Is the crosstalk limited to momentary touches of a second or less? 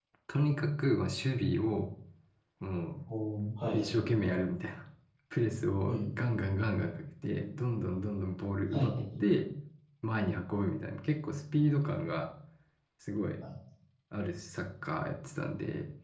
Yes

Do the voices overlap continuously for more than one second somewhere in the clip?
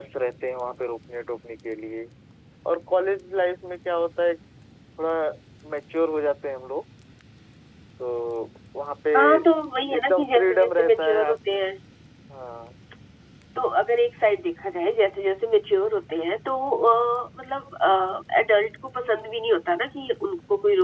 Yes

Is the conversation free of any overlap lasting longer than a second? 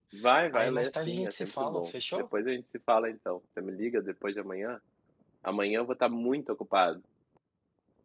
No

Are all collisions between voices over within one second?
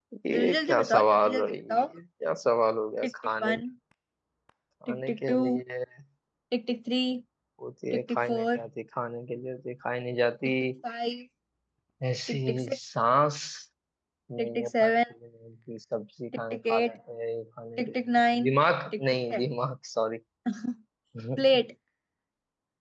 No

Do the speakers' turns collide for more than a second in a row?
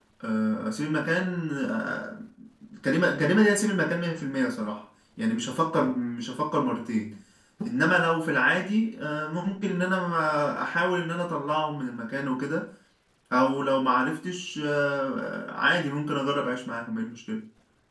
No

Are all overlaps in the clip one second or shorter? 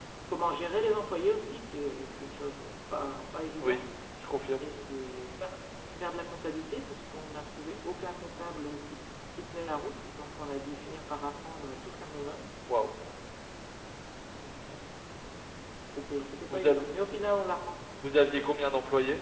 Yes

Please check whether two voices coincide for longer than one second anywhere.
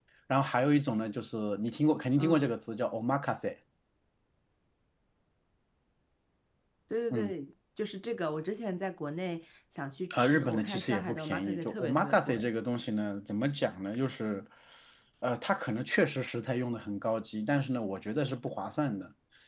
Yes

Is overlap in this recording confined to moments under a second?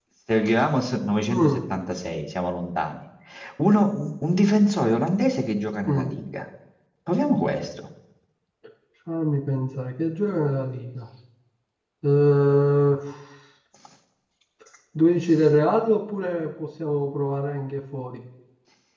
Yes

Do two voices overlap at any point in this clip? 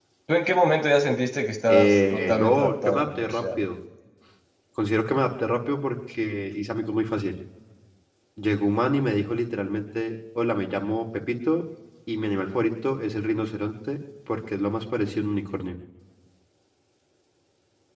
Yes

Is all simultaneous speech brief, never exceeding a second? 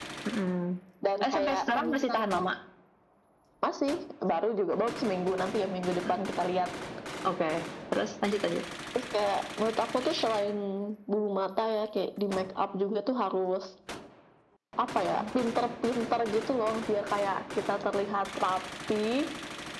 No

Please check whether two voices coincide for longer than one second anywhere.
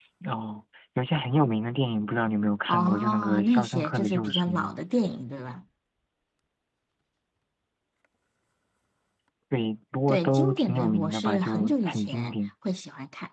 Yes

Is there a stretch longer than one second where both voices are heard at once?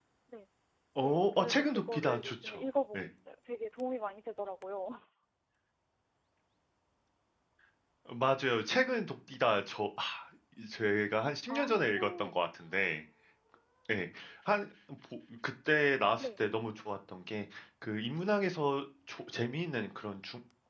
Yes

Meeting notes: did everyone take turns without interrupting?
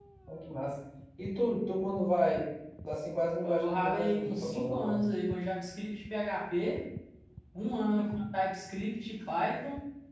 No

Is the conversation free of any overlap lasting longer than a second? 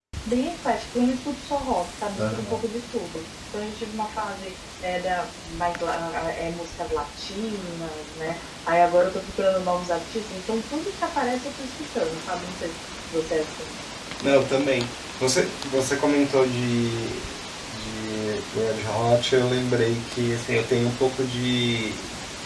Yes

